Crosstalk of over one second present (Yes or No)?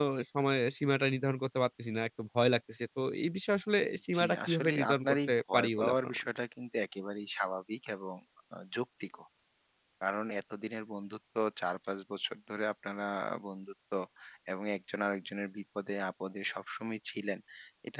Yes